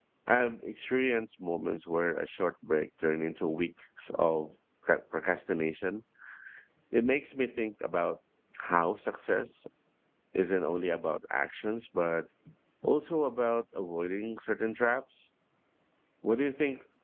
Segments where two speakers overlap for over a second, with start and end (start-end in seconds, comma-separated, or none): none